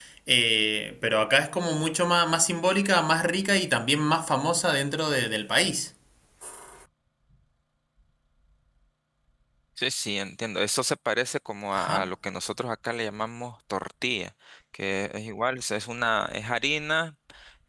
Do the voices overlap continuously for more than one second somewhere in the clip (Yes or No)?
No